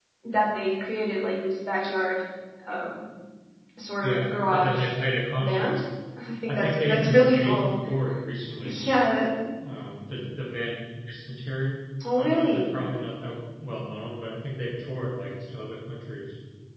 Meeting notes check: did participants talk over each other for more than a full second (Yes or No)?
Yes